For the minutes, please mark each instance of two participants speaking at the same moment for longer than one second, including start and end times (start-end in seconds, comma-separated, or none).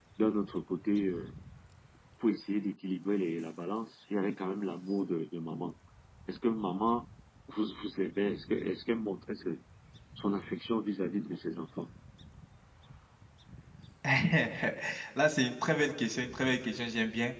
none